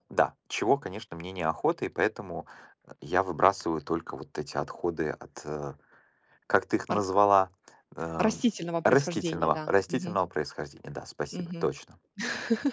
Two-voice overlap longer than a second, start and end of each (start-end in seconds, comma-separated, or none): 8.8-10.2